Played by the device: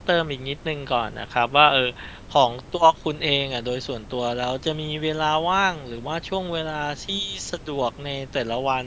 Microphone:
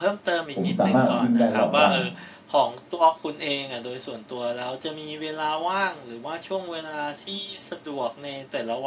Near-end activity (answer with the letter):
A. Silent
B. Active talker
B